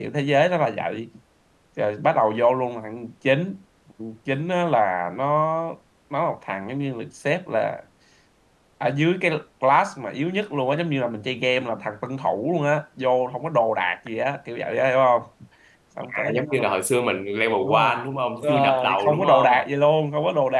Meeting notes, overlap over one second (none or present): present